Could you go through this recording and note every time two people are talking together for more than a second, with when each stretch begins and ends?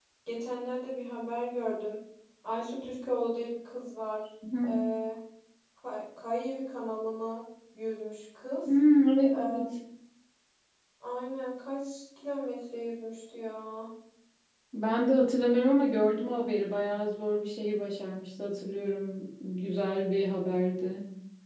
none

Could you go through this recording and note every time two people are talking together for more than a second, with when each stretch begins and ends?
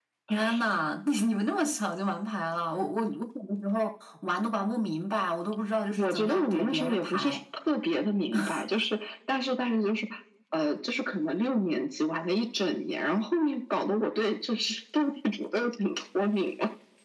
6.0-7.4

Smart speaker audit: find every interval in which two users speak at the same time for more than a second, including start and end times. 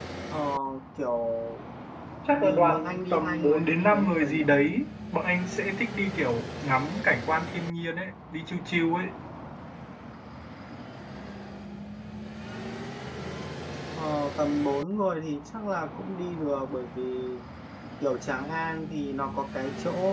2.4-4.4

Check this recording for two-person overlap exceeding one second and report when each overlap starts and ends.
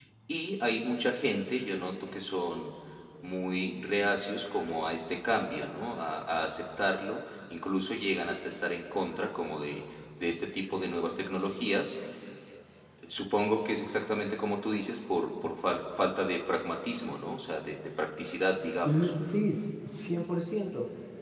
none

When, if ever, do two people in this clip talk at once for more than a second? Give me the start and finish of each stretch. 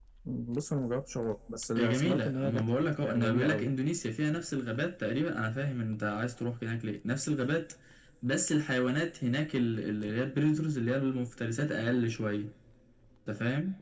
1.8-3.7

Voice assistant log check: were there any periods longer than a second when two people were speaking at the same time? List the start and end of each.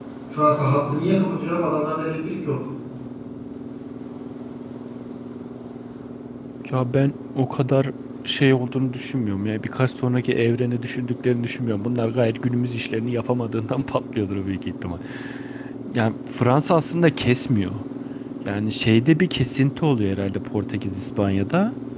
none

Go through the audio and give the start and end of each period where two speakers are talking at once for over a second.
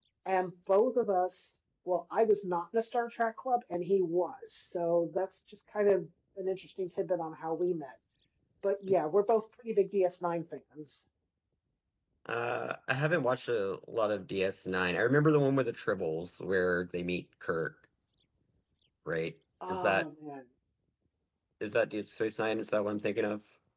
none

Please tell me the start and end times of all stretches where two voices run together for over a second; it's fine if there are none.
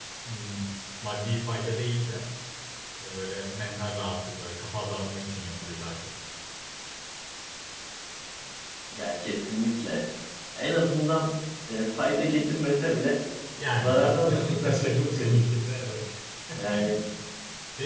13.8-15.4

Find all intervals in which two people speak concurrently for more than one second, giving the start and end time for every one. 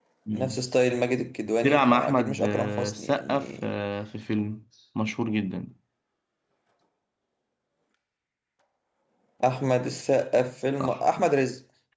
1.6-3.7

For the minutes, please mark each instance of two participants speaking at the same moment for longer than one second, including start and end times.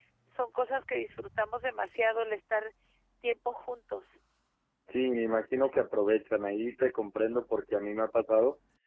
none

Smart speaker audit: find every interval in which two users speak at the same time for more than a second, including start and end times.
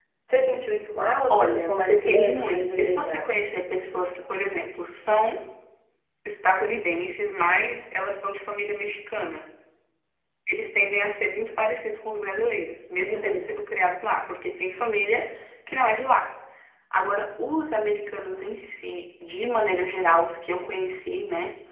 1.3-3.4

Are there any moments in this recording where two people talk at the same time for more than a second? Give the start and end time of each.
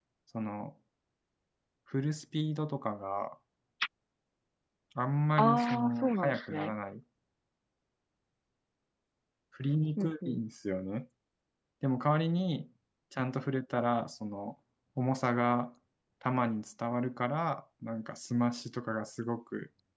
5.4-6.7

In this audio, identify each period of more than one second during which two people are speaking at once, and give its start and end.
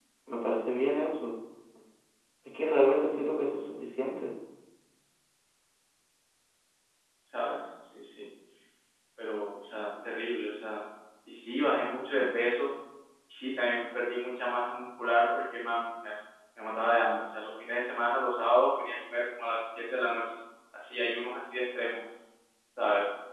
none

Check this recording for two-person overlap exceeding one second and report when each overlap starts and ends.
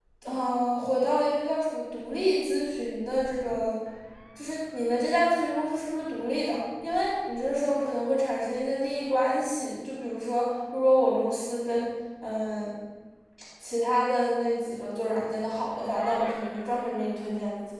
none

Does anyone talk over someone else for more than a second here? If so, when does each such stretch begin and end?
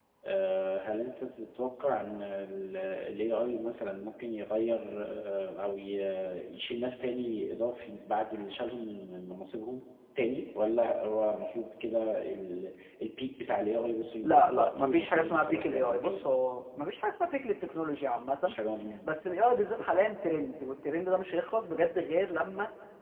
14.2-16.2

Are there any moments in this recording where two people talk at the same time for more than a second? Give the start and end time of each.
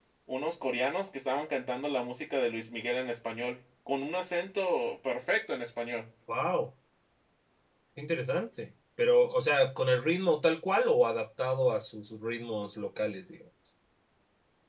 none

